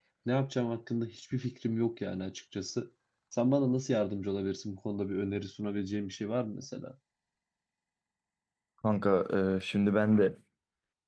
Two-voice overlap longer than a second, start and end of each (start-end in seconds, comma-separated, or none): none